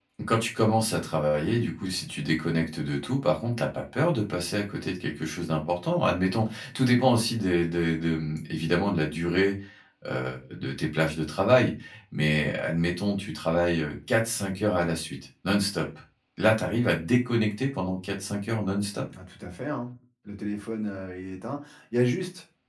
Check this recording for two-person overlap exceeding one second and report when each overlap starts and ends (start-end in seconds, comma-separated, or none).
none